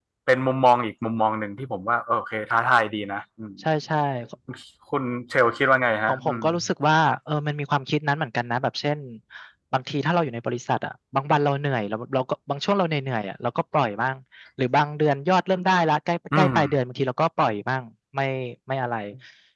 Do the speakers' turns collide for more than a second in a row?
No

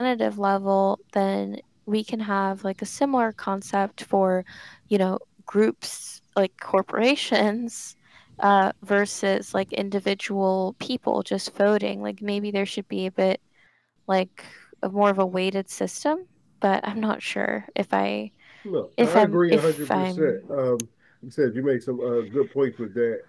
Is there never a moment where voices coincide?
No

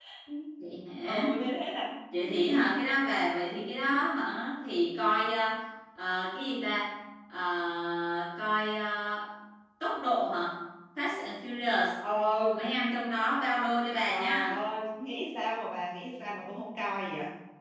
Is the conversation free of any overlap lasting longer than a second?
Yes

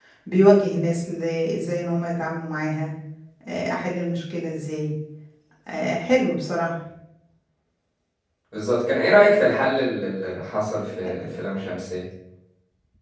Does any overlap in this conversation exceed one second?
No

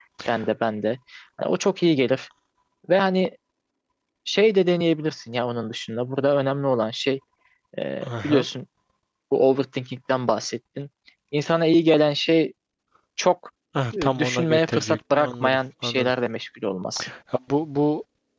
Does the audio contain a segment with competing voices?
Yes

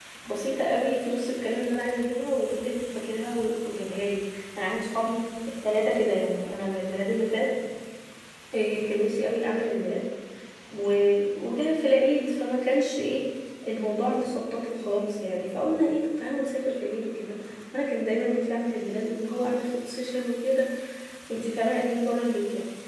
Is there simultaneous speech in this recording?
No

